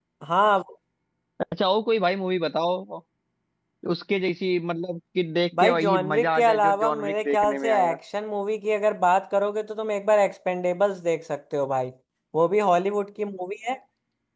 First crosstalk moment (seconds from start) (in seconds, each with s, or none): 5.5 s